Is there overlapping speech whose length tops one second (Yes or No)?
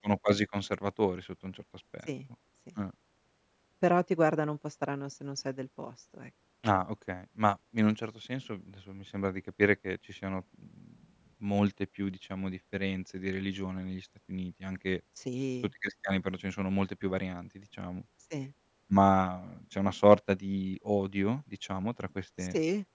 No